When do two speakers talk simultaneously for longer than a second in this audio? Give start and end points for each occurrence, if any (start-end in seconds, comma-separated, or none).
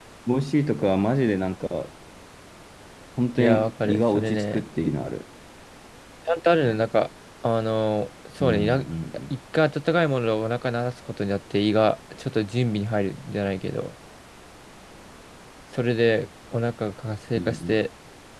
3.4-4.6